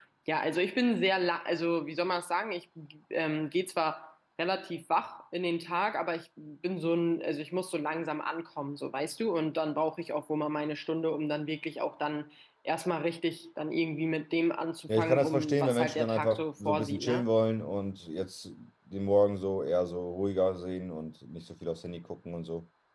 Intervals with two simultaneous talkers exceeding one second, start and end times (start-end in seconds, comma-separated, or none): 15.0-17.2